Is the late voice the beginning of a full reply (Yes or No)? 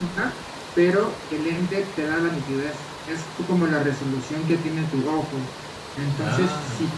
No